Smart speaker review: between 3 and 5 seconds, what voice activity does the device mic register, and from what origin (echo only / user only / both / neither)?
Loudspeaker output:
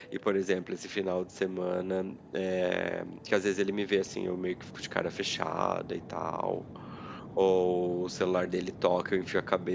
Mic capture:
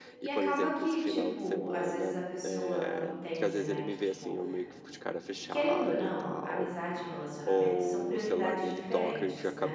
both